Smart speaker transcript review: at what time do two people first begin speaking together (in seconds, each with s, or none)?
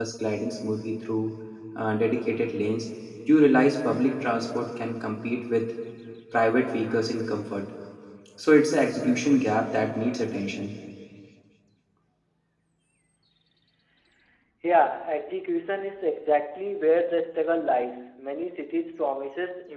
none